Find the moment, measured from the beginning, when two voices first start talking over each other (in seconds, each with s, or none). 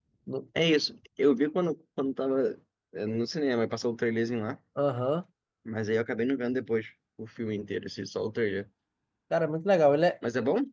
none